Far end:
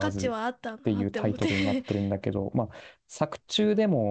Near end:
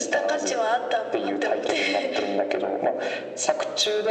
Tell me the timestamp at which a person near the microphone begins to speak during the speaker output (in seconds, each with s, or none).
none